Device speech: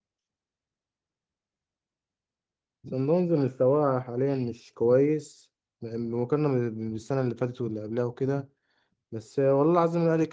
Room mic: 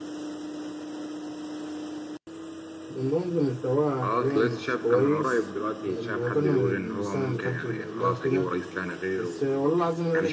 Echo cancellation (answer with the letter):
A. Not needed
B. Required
B